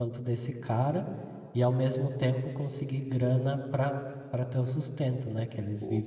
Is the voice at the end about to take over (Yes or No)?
Yes